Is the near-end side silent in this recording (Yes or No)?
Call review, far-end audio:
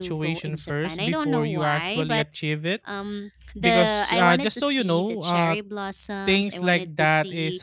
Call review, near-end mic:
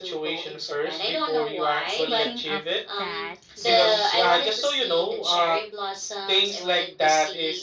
No